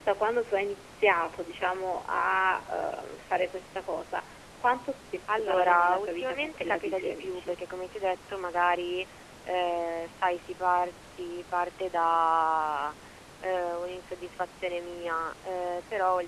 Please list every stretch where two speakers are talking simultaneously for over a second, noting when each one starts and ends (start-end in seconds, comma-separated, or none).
5.3-7.6